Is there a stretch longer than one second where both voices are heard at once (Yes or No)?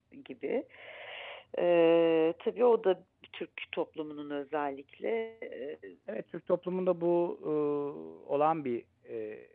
No